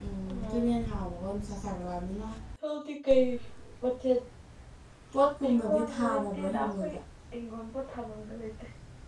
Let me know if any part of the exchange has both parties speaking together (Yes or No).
Yes